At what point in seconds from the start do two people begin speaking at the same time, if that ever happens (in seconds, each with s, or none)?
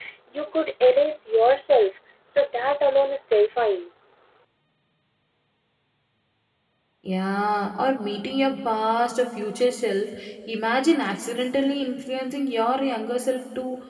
none